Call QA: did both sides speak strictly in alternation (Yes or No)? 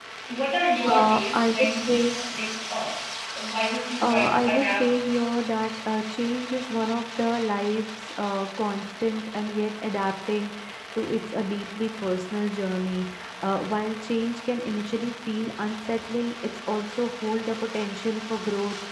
No